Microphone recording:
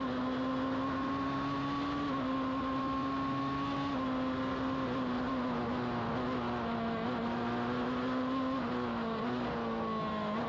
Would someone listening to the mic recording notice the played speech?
No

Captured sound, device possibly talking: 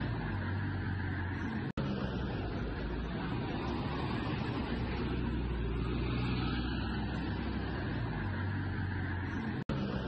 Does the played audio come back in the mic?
No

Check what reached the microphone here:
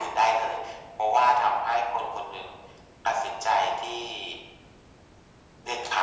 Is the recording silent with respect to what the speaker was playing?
No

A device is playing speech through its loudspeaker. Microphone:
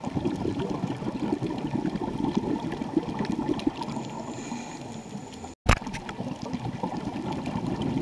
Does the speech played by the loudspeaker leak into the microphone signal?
No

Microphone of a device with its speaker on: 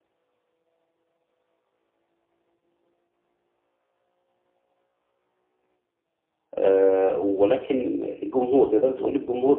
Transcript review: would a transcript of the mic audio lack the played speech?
Yes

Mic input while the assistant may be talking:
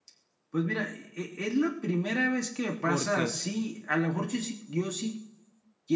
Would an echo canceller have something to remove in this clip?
Yes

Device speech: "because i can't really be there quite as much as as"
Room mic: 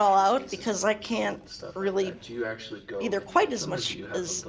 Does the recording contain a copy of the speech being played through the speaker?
Yes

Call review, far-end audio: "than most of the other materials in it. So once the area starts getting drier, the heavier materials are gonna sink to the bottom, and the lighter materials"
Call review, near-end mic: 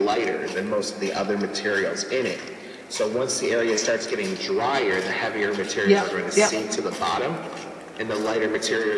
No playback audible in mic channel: No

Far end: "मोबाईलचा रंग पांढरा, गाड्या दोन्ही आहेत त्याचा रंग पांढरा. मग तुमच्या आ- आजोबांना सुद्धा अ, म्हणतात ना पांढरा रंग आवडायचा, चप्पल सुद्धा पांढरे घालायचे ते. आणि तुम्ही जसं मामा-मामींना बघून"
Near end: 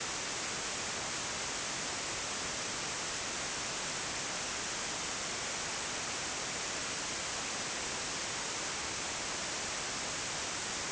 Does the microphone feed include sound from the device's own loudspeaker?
No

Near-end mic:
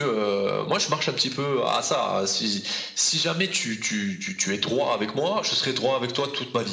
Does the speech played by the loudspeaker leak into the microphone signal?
Yes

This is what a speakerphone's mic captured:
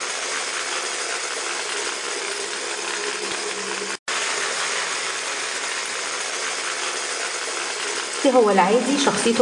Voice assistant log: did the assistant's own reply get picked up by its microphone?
No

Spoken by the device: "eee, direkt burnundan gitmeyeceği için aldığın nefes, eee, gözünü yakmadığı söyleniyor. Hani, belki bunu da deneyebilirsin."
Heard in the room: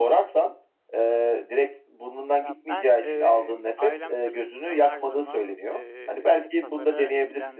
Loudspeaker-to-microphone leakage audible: Yes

